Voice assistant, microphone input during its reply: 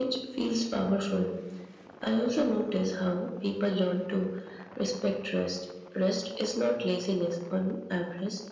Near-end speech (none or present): none